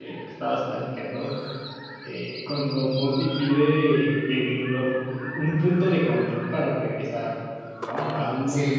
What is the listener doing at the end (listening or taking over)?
listening